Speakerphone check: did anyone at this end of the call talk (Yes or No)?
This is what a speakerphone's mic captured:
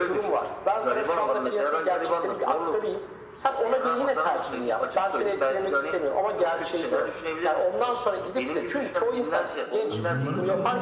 Yes